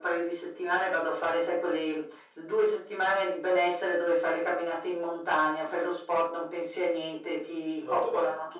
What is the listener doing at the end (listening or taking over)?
listening